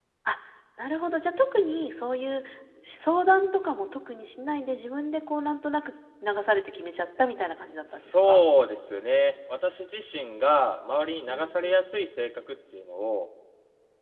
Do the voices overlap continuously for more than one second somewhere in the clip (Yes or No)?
No